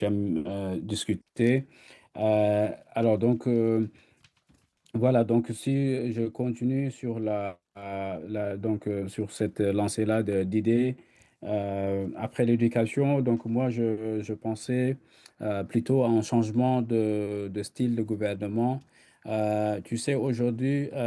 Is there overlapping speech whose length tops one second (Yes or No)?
No